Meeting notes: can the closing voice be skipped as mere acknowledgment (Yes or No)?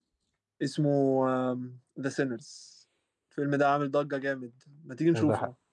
Yes